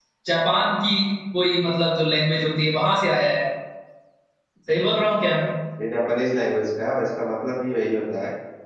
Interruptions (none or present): none